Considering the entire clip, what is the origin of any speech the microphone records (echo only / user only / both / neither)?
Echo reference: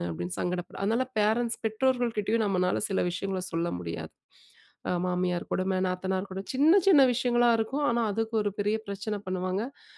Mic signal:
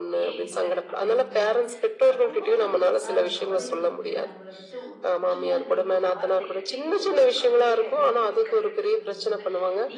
both